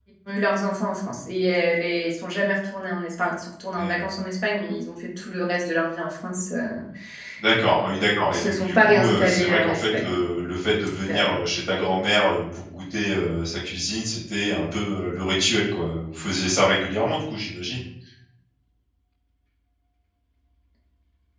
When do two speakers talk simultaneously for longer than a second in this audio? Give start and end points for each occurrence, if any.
8.3-10.1

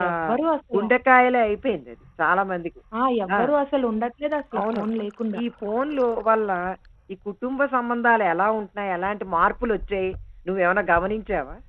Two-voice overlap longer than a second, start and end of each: none

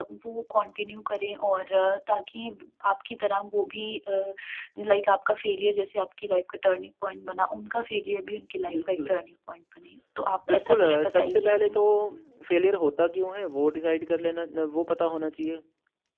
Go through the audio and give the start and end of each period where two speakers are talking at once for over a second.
10.5-11.8

